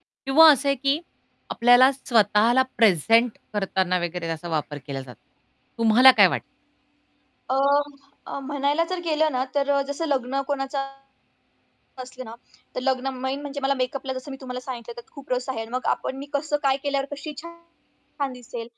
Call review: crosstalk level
none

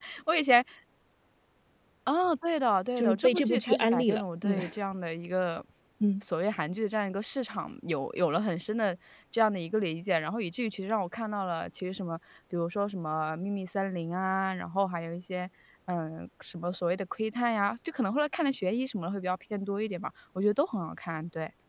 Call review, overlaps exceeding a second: present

